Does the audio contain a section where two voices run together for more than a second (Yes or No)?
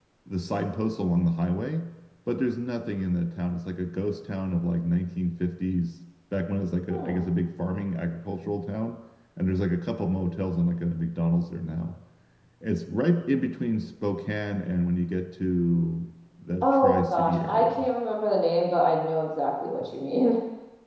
Yes